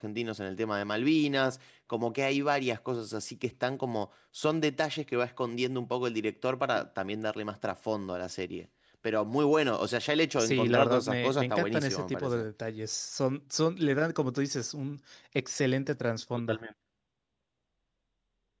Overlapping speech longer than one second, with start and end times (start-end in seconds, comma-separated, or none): 10.4-12.4